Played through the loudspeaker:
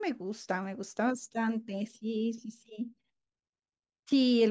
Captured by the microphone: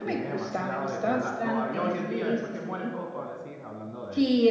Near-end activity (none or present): present